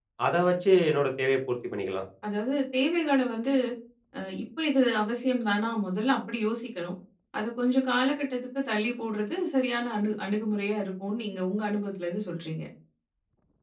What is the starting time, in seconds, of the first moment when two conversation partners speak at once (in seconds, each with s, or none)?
none